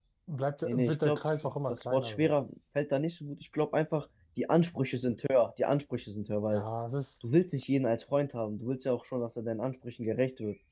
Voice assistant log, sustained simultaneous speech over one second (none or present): present